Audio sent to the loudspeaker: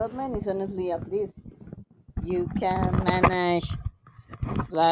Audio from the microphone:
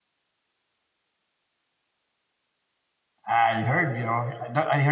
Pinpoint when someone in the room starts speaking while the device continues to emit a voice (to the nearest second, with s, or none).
3 s